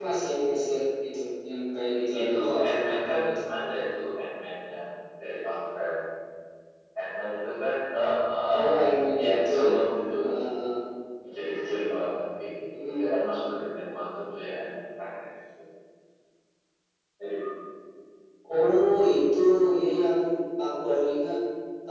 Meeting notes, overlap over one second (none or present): present